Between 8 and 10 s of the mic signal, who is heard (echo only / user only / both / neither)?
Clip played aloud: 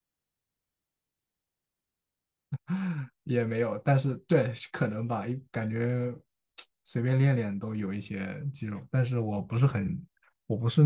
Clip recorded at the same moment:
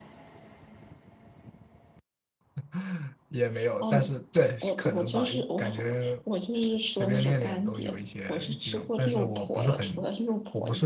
both